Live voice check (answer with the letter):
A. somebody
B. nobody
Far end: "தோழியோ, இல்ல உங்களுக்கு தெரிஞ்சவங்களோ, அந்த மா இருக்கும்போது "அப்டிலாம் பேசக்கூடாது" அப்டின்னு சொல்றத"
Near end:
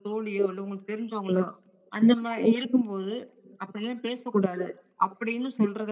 B